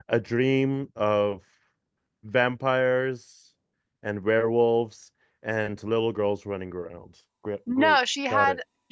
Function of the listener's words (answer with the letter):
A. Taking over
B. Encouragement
A